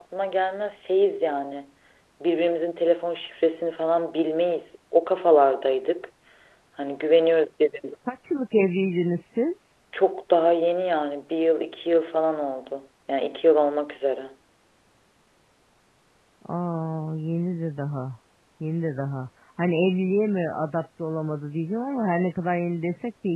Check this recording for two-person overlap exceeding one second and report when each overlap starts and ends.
none

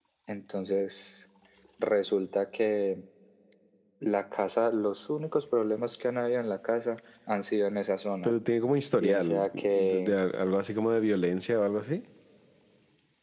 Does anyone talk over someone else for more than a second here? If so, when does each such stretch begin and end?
8.9-10.2

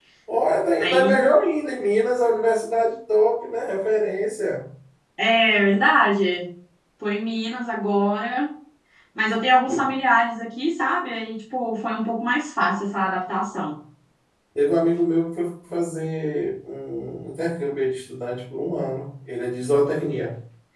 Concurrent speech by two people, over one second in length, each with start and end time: none

